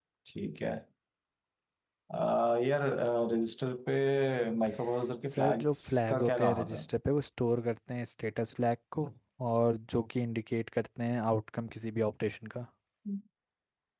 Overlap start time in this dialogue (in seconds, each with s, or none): 5.3 s